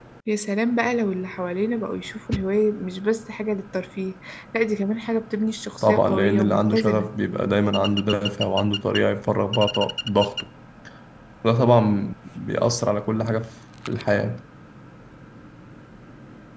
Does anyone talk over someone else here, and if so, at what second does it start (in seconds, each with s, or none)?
5.8 s